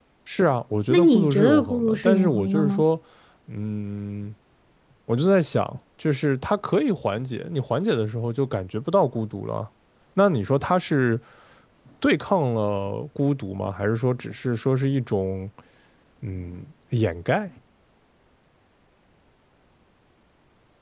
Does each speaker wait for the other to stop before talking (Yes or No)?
No